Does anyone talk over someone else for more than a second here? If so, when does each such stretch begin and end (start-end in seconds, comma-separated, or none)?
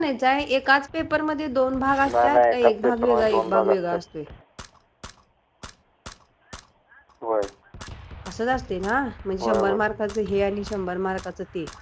2.1-4.0